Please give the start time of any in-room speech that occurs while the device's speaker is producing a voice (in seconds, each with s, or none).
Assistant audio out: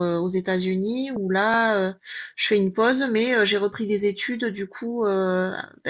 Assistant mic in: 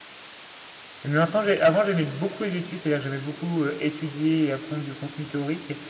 1.1 s